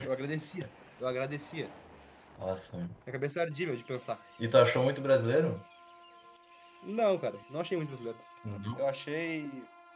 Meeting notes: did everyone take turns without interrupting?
Yes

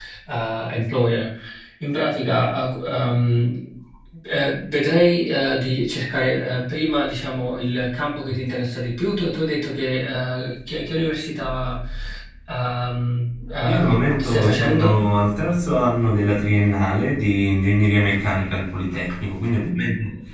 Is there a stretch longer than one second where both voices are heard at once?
Yes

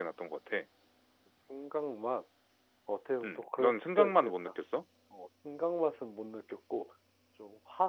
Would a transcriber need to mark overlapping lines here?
Yes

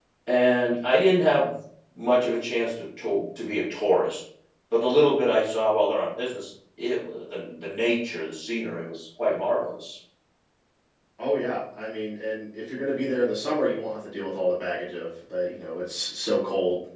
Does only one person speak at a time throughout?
Yes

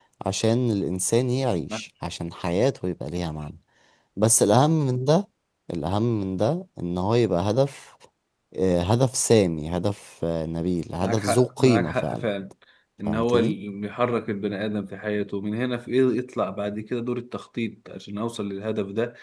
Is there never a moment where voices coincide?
No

